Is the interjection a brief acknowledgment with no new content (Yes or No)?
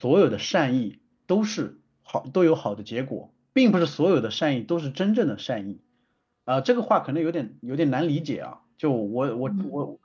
No